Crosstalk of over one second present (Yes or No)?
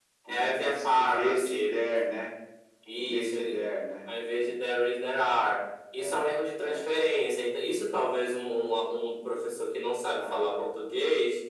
Yes